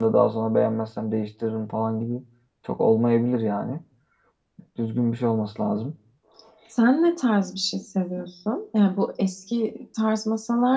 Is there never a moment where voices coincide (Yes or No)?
Yes